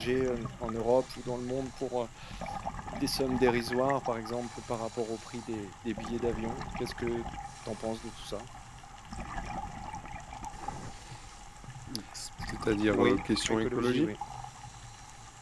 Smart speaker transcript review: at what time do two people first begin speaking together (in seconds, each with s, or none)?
12.9 s